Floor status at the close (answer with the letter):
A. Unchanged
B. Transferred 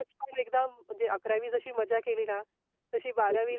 A